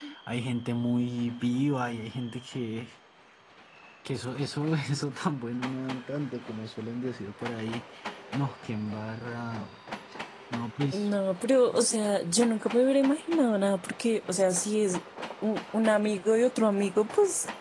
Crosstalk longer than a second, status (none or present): none